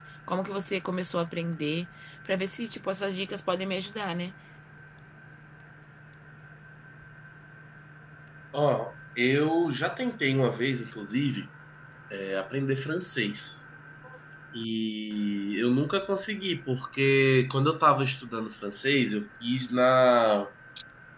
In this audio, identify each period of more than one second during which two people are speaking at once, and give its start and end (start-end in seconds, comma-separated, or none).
none